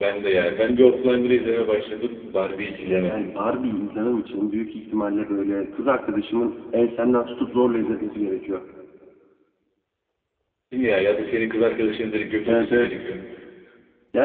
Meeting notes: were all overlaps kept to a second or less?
Yes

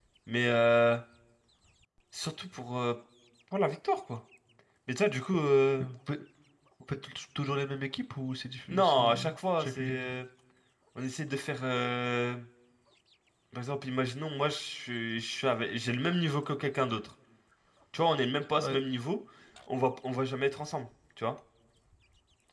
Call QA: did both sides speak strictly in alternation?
No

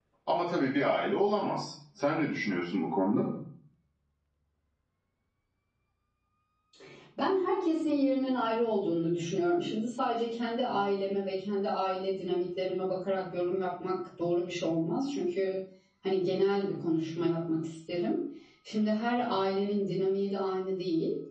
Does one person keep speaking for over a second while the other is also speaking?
No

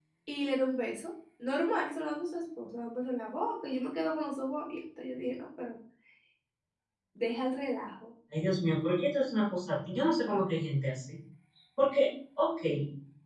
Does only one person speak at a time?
Yes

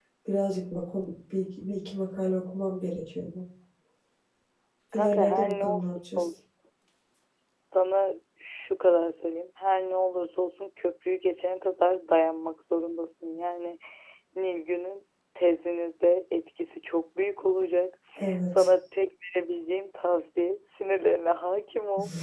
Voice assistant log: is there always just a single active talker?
No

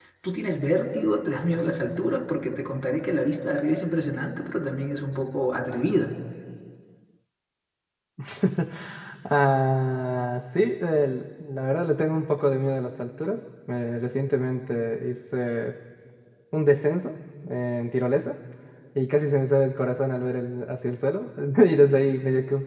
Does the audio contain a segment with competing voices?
No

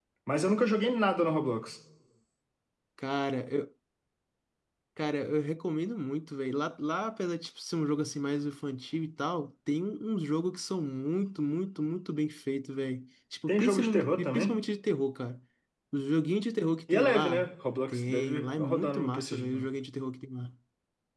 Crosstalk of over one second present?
Yes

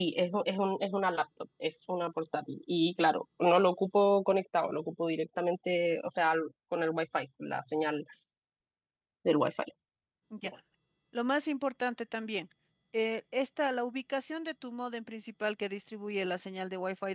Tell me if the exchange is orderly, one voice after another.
Yes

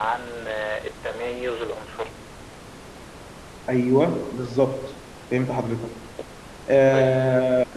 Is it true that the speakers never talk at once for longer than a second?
Yes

